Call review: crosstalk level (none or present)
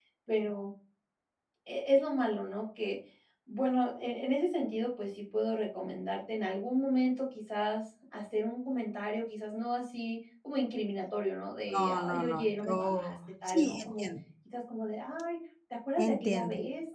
present